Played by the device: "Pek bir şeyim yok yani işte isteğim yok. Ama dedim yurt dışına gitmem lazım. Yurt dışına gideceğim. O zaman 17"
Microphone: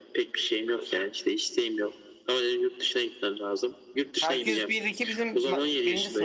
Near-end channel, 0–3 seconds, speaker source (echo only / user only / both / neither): echo only